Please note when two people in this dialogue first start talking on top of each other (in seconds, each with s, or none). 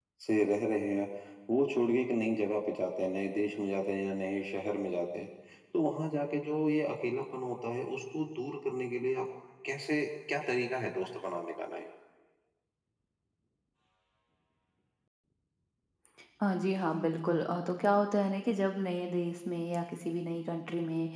none